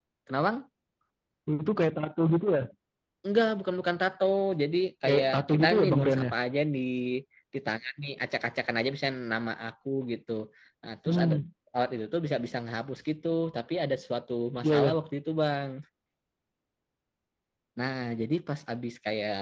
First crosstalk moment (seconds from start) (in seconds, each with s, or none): 5.0 s